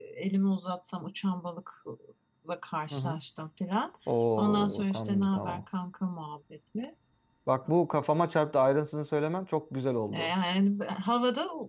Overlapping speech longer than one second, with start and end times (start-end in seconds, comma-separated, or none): 4.4-5.6